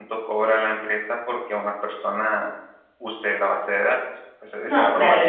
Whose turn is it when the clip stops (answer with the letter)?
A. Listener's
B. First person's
A